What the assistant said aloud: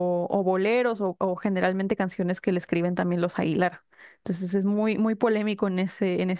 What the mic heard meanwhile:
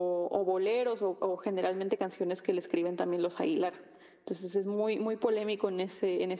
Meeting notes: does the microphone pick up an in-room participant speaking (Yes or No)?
No